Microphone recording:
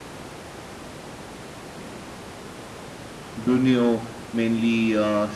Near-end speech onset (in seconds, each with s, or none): 3.4 s